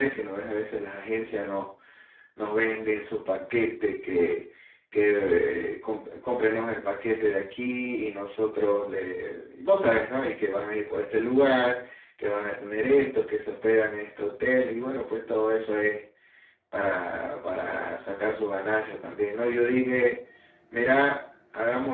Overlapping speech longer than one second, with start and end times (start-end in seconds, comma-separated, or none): none